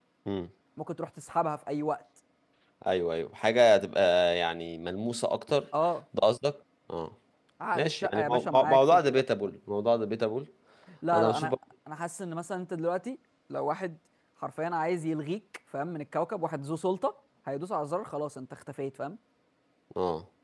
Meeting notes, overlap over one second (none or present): present